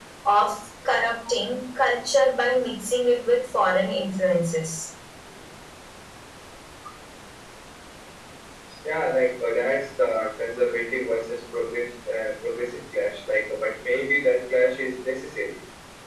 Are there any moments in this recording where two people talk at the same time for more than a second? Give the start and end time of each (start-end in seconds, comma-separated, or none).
none